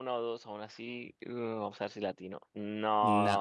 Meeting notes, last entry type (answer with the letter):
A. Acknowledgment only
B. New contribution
B